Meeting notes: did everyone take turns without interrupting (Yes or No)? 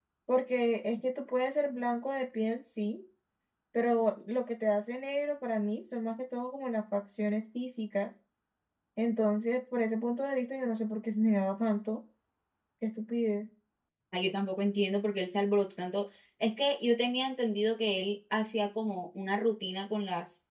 Yes